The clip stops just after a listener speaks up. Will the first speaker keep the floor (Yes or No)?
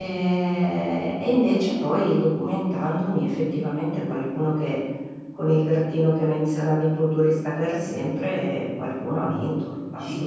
No